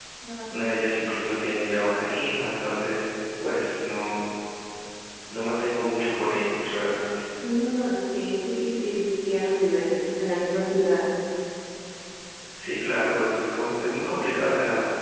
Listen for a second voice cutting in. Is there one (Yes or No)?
No